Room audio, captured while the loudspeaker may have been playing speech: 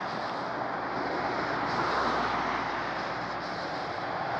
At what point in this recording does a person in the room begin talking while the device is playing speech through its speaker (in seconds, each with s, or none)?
none